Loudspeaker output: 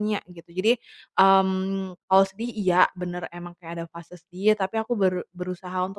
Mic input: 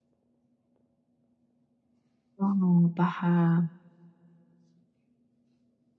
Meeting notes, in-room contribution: present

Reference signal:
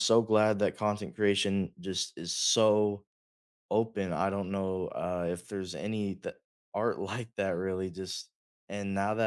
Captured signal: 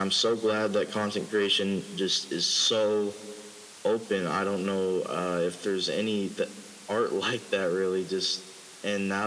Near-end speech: none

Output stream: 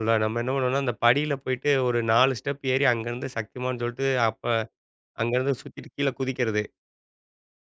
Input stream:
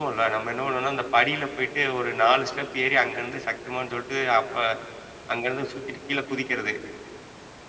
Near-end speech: none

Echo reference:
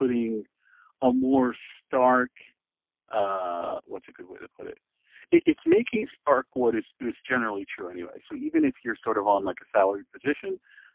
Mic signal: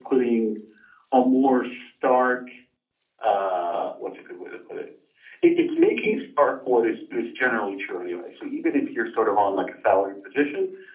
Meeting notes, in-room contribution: none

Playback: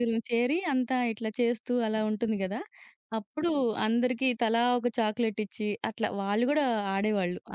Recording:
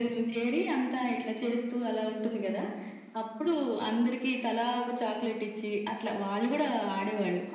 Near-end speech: none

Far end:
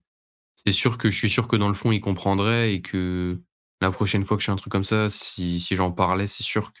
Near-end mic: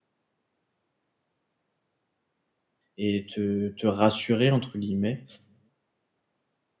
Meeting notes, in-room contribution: present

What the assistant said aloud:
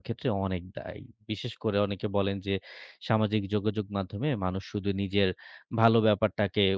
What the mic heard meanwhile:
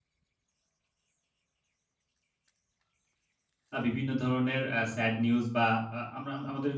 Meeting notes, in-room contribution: present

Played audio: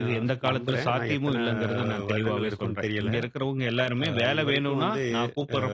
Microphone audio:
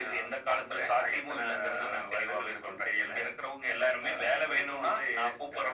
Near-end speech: none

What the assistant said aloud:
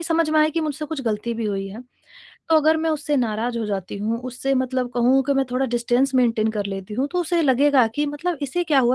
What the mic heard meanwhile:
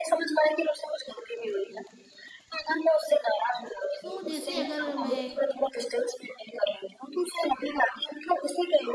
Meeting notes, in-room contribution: present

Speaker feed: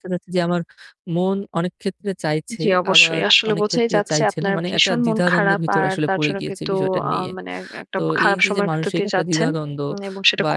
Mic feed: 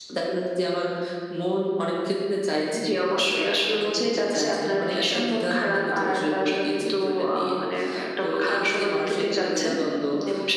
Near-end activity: none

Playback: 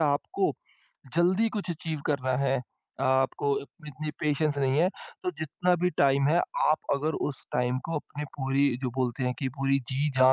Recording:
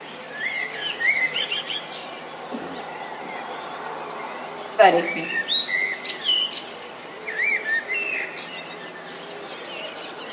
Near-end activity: present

